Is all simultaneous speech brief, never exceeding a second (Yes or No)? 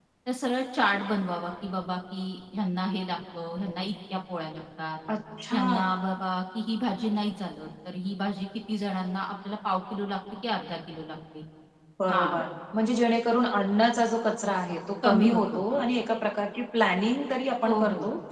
Yes